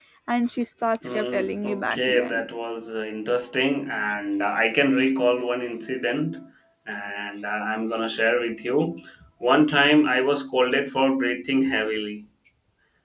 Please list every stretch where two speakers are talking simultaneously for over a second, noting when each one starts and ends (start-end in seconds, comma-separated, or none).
1.1-2.4